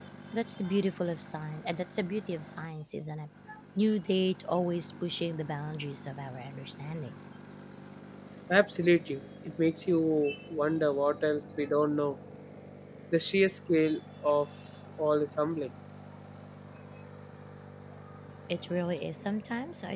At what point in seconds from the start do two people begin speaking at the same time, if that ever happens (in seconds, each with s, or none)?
none